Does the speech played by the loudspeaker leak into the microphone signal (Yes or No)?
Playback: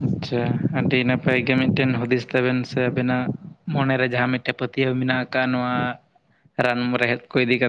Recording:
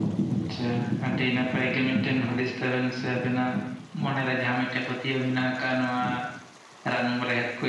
Yes